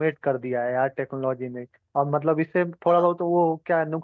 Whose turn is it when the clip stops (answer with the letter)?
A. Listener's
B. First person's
B